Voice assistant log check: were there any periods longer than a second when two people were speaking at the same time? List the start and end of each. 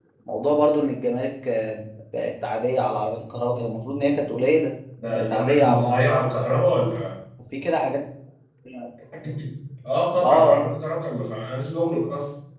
5.1-6.4

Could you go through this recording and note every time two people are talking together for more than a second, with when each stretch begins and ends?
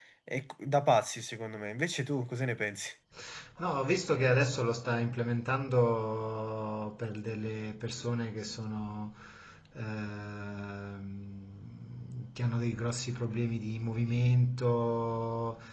none

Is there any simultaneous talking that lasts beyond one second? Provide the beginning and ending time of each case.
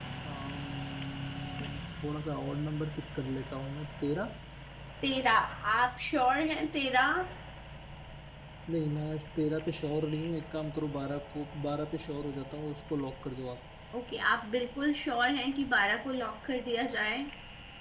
none

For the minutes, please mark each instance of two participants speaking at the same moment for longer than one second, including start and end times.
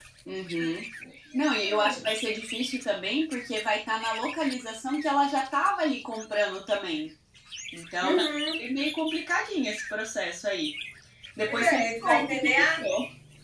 11.5-12.8

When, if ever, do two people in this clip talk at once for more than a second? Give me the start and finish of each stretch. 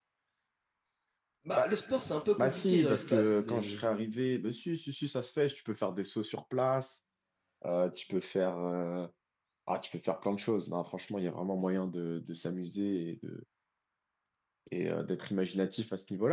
2.4-3.8

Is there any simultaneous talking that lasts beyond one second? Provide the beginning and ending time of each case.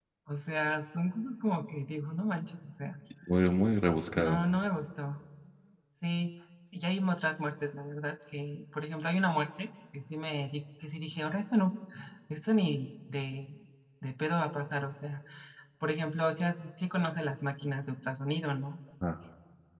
none

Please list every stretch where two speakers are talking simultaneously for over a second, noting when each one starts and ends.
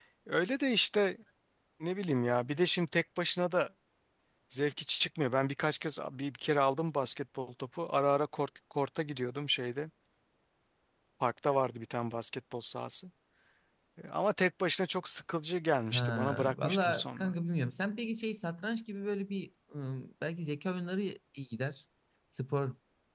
15.9-17.3

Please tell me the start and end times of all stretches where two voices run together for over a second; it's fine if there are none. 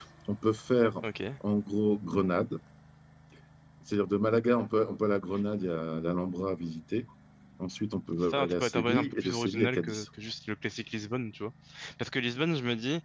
8.2-10.0

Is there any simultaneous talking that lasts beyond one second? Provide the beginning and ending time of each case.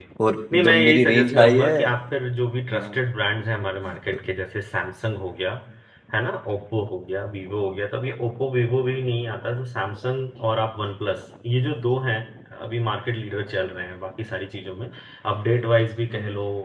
0.5-1.7

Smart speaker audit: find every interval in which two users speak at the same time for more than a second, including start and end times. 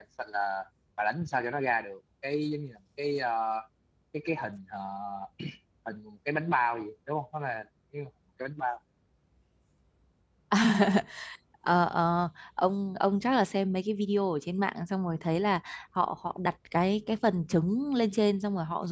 none

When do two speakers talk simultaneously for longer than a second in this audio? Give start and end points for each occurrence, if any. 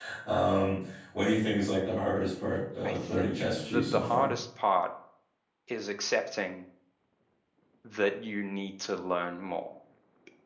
2.8-4.3

